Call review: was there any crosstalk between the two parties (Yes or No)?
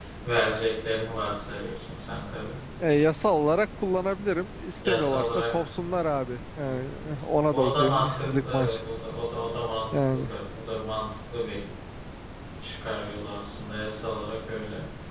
Yes